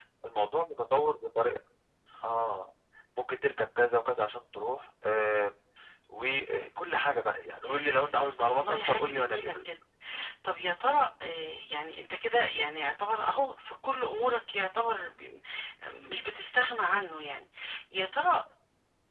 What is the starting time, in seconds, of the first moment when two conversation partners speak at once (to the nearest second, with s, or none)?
8 s